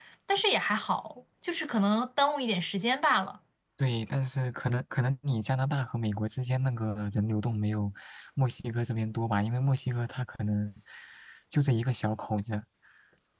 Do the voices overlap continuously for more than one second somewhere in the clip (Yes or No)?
No